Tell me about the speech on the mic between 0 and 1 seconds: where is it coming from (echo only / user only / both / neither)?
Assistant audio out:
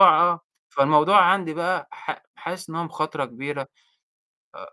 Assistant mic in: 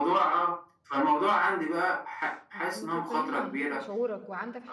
echo only